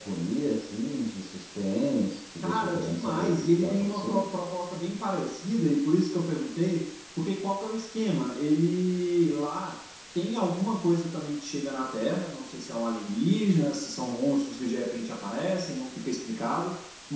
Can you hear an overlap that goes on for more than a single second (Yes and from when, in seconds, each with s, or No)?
Yes, from 2.4 s